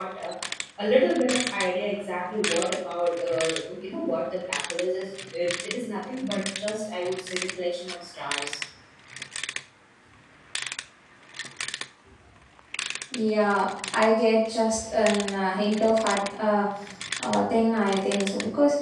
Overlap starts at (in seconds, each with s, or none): none